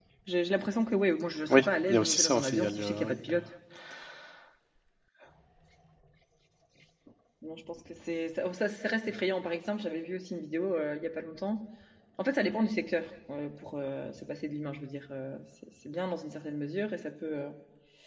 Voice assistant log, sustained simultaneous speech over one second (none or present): present